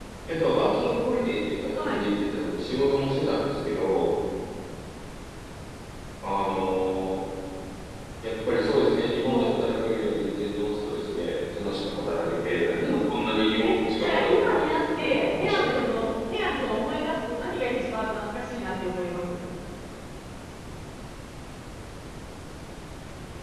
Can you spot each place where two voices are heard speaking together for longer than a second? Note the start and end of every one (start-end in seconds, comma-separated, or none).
13.6-15.8